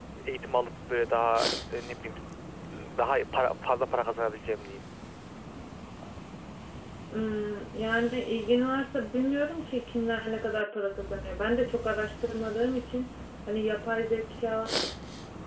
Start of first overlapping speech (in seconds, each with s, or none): none